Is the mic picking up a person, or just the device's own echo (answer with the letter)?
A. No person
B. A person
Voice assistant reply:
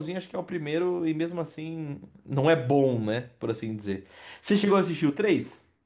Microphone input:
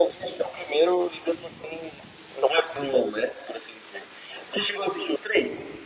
A